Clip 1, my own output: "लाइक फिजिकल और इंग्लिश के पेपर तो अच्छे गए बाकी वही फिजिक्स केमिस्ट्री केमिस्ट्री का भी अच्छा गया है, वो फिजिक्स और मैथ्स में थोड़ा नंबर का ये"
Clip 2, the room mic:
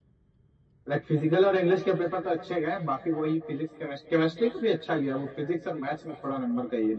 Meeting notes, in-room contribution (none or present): none